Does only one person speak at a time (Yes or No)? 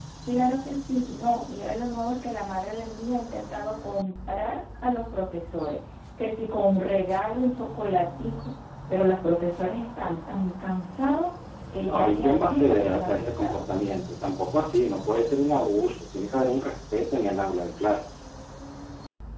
No